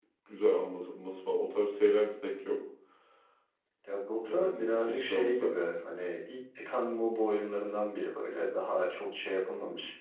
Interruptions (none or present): present